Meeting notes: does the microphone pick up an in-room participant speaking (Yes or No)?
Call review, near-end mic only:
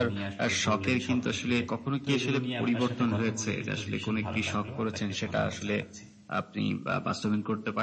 Yes